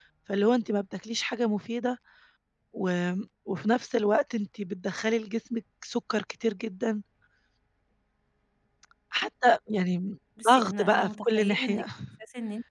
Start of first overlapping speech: 10.4 s

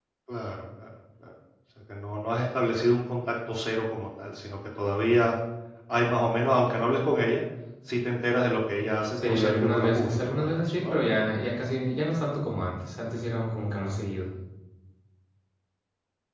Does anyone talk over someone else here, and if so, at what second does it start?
9.2 s

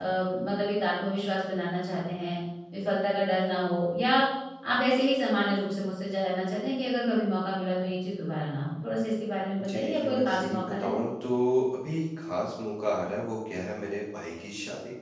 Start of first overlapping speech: 9.6 s

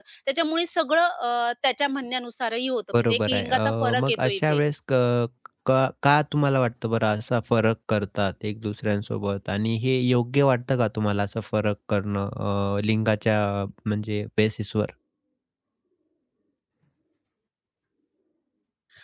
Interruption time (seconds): 2.9 s

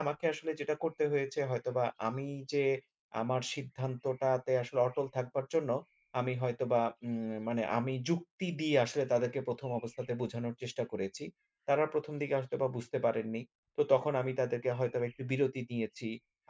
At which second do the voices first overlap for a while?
none

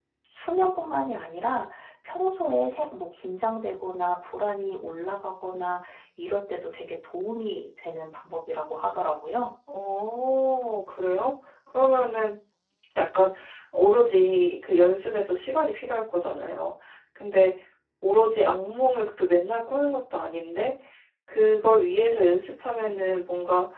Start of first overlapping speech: none

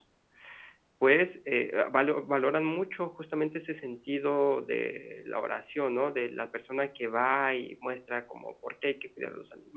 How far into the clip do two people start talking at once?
none

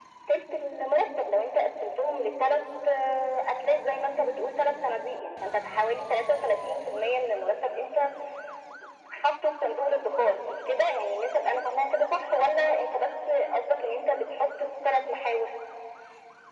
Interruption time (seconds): none

